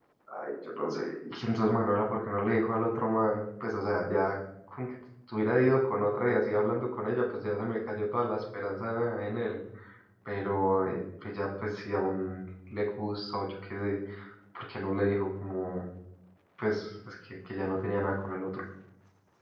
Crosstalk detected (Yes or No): No